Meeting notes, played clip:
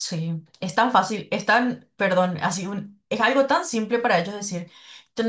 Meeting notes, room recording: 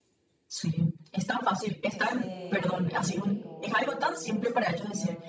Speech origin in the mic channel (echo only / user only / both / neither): both